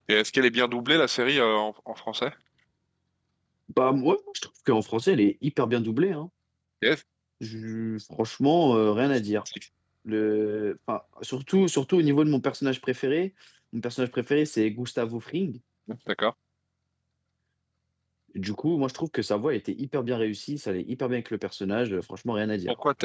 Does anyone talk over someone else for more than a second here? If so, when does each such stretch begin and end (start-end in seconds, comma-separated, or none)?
none